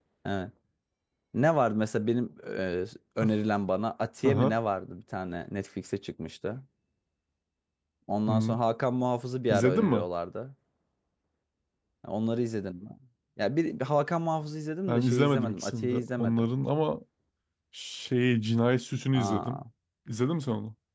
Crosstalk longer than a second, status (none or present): present